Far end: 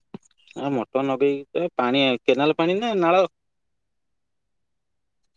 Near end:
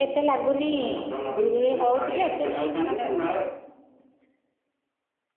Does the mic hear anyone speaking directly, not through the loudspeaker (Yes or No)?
Yes